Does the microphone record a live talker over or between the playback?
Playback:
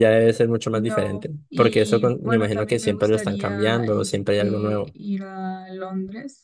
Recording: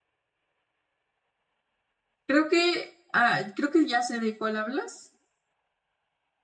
Yes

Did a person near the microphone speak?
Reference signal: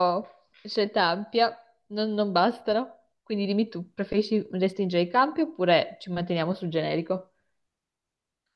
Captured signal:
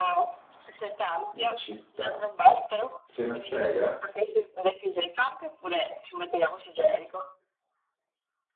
Yes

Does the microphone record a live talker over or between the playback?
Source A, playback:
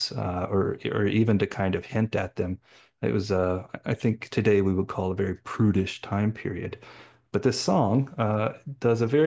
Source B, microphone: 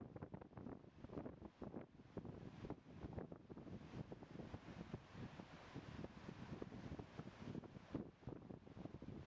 No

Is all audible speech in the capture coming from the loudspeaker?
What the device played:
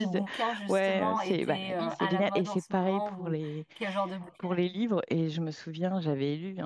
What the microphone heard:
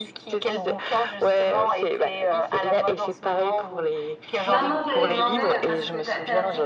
No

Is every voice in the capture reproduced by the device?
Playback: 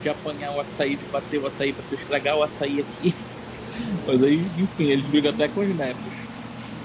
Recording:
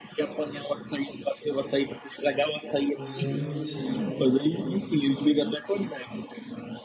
No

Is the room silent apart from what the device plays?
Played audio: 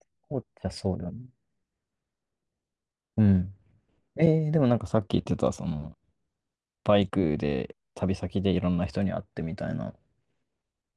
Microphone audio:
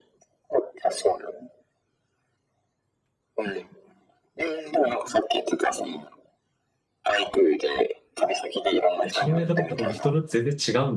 No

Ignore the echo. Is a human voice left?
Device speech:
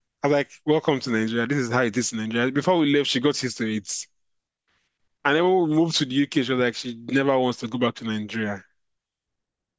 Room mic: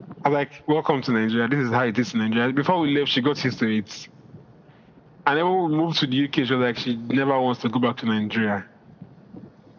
No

